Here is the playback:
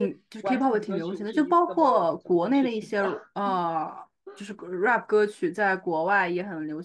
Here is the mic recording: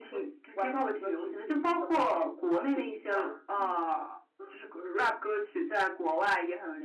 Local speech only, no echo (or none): none